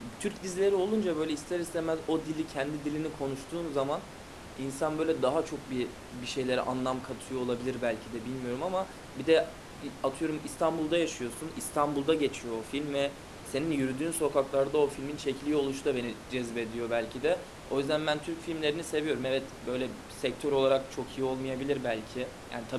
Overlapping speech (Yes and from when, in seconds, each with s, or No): No